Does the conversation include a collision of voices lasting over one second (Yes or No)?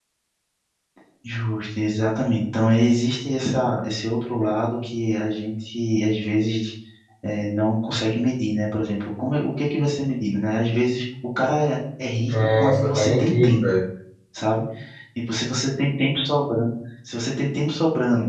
Yes